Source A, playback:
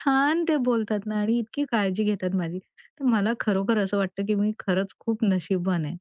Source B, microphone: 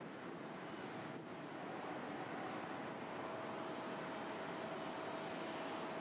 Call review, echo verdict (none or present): none